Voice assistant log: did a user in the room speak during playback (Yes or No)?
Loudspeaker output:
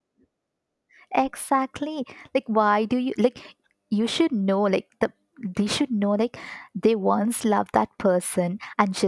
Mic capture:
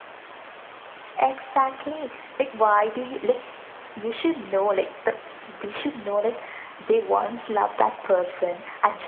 No